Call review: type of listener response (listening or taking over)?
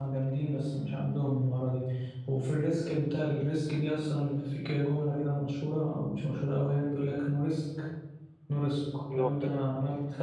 listening